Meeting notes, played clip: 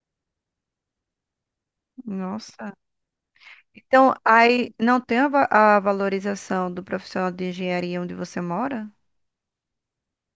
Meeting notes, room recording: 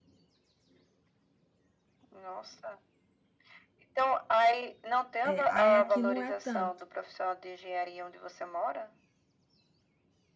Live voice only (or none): é, aí aqui não é tanto.